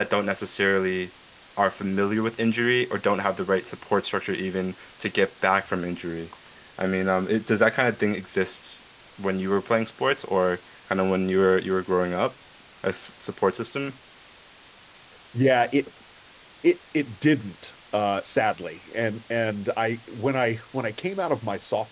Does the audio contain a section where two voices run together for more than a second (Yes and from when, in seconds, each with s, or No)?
No